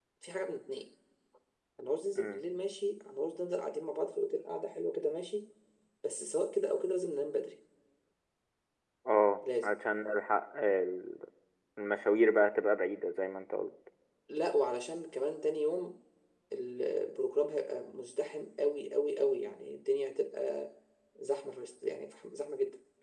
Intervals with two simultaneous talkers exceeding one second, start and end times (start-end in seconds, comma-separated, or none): none